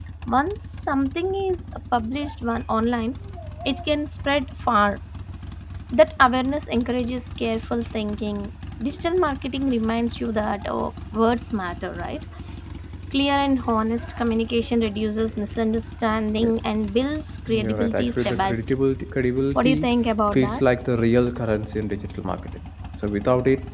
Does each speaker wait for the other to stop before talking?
No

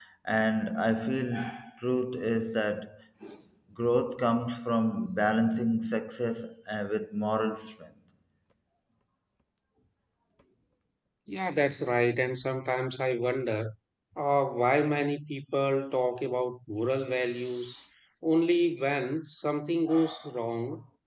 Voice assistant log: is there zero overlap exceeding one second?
Yes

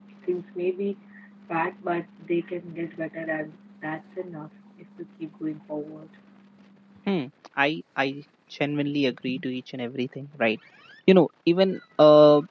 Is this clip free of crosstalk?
Yes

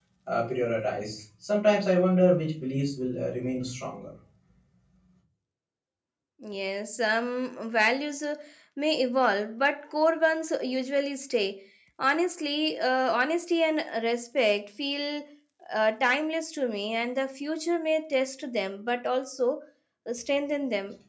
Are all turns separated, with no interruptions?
Yes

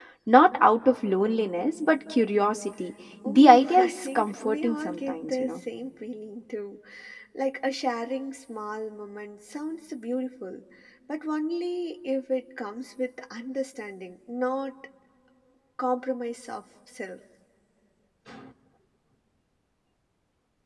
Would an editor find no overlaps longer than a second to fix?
No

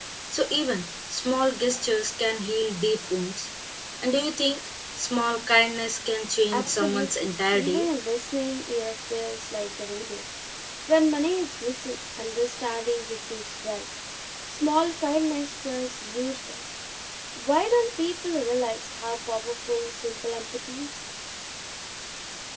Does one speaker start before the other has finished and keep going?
Yes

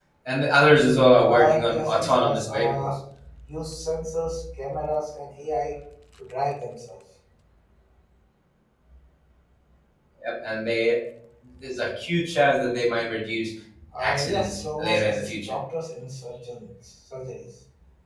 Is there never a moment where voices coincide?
No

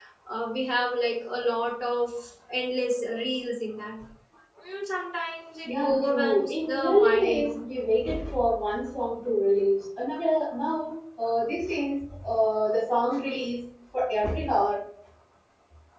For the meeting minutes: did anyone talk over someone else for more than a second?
Yes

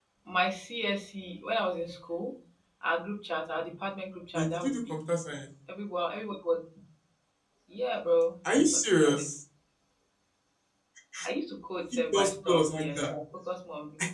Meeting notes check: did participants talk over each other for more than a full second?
Yes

